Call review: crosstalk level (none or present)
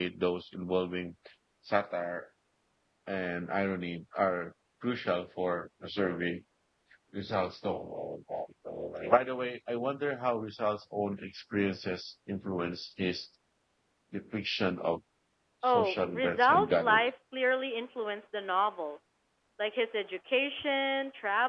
present